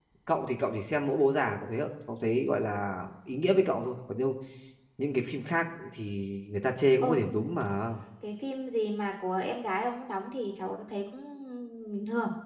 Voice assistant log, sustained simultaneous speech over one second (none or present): none